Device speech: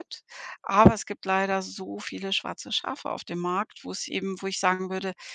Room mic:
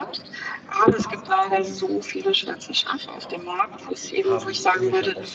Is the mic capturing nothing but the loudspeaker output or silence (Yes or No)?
No